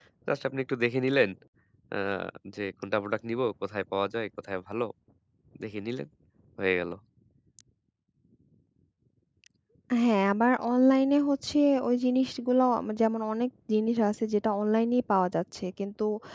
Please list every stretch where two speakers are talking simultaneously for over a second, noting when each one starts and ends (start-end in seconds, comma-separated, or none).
none